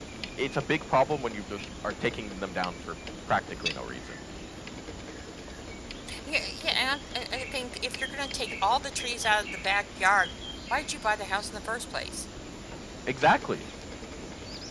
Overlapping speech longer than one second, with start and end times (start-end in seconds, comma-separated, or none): none